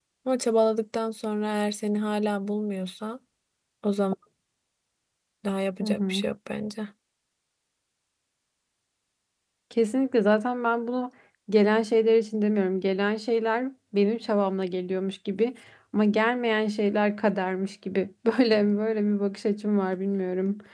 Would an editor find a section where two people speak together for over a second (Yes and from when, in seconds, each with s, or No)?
No